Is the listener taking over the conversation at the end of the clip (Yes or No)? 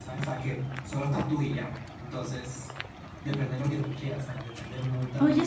Yes